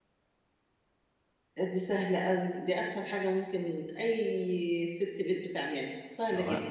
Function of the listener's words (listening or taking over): taking over